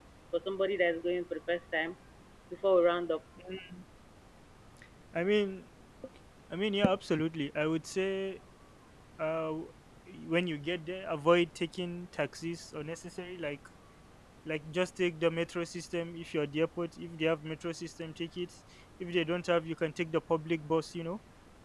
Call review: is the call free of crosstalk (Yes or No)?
Yes